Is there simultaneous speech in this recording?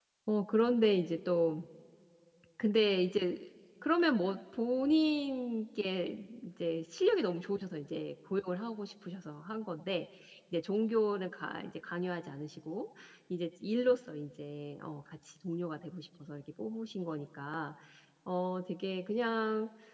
No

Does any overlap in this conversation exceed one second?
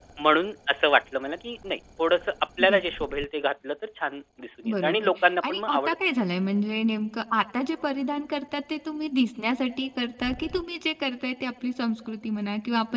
Yes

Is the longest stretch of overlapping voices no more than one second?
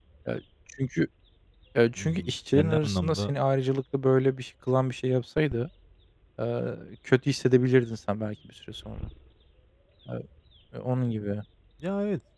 No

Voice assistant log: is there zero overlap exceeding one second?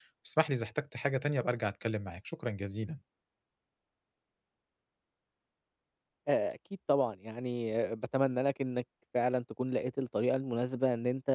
Yes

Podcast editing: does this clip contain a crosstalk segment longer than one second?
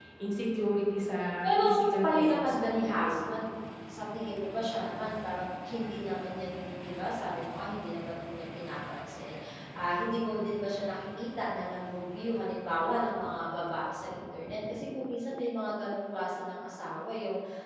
Yes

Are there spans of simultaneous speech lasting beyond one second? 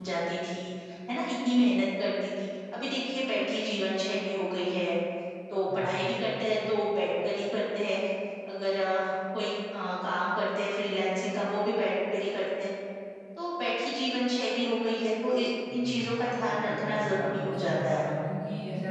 Yes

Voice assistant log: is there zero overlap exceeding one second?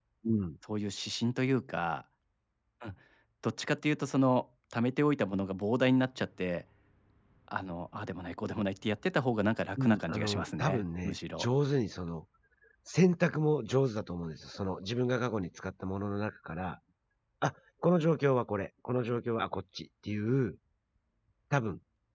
No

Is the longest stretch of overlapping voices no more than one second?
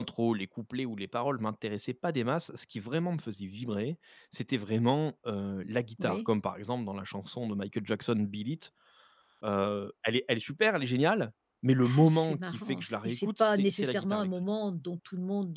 No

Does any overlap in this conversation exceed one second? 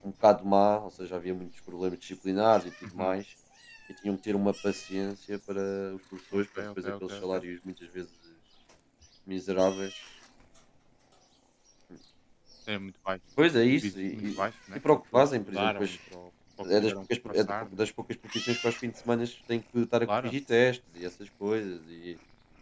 Yes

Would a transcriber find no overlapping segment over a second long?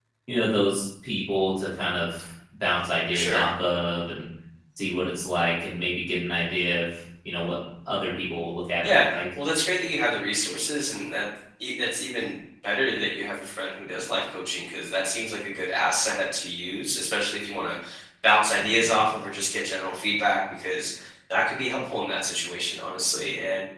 Yes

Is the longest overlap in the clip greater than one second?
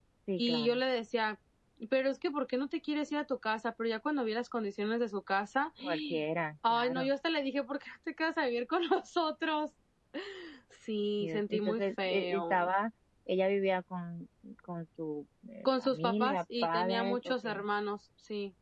Yes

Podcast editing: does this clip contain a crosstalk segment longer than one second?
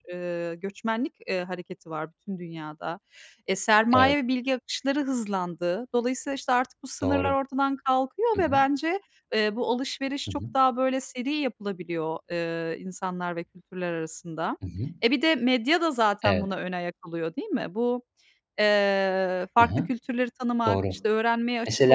No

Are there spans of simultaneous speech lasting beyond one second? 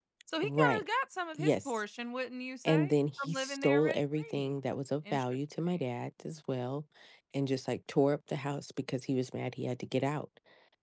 Yes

